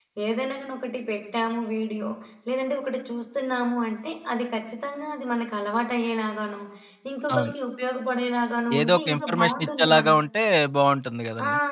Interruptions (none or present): present